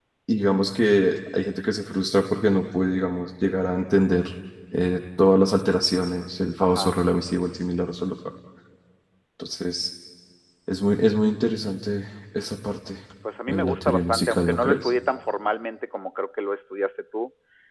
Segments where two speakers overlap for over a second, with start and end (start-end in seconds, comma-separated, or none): 13.5-14.9